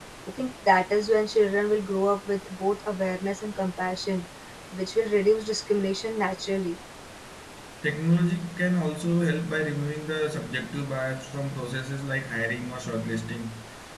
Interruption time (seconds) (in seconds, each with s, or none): none